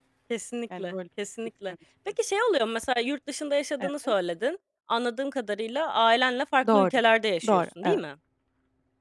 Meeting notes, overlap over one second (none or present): none